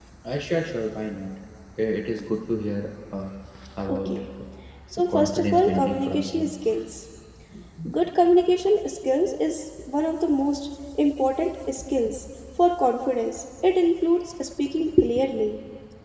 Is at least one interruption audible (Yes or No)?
Yes